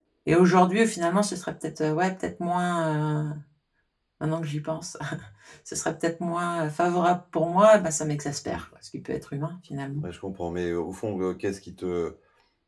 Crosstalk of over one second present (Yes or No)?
No